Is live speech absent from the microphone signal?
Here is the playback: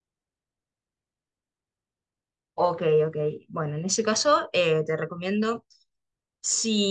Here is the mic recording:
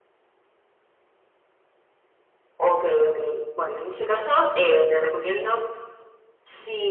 Yes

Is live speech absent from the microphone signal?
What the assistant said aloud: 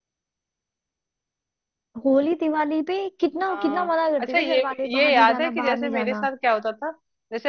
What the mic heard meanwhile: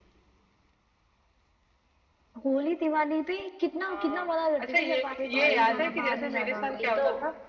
No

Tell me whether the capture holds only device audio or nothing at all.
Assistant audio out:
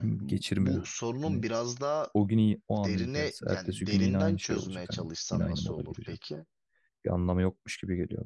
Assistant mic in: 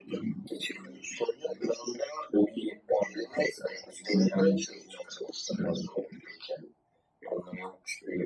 Yes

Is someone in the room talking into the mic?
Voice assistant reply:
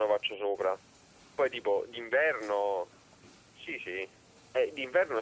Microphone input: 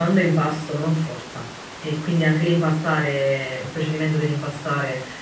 Yes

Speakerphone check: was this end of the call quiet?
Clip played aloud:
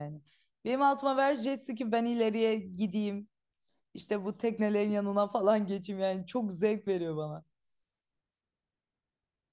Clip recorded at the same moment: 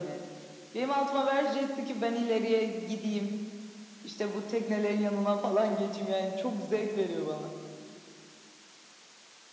Yes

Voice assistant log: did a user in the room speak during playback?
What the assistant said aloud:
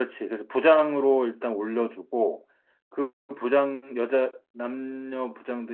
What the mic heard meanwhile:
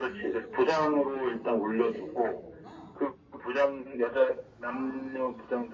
Yes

